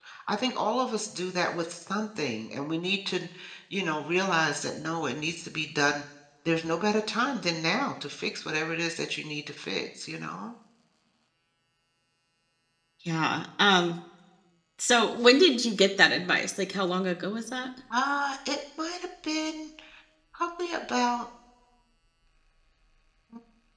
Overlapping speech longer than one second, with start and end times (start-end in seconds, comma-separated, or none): none